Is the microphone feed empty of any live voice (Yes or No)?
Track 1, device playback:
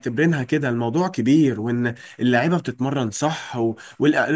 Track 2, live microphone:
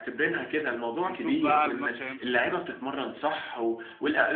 No